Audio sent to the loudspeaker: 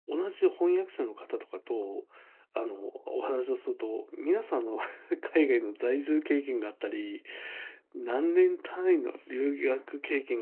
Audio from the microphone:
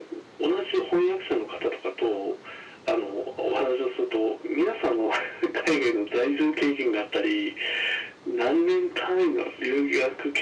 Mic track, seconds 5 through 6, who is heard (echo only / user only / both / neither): echo only